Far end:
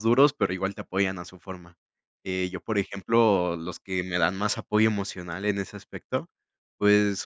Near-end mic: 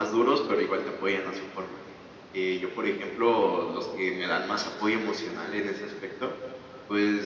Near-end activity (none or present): none